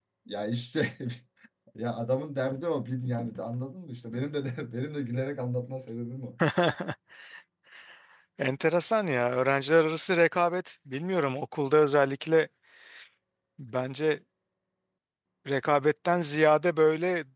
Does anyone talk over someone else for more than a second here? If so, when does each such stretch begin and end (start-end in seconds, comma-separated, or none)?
none